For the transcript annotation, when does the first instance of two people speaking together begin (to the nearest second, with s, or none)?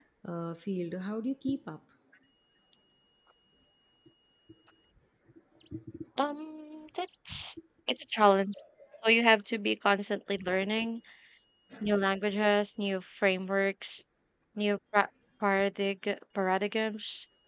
none